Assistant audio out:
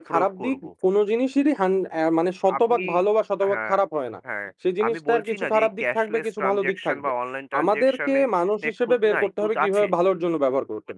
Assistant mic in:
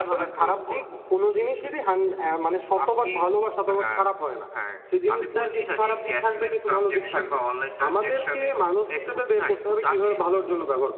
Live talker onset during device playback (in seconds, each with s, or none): none